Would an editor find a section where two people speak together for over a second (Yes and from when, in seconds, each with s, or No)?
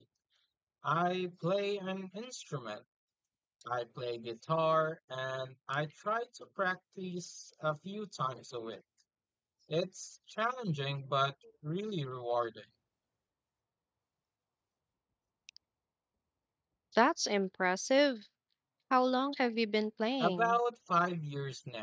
No